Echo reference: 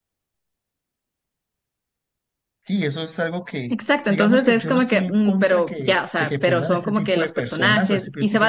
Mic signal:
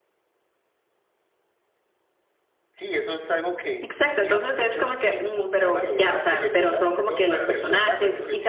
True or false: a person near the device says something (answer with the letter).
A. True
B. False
A